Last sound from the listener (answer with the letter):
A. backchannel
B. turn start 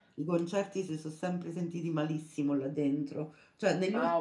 A